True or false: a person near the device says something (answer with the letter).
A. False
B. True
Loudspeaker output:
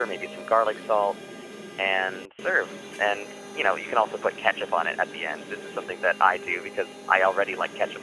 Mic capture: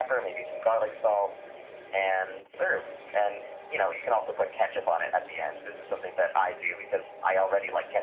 A